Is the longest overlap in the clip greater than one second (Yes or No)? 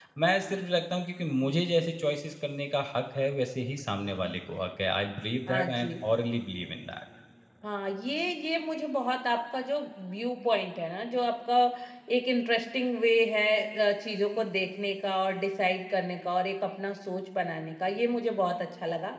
No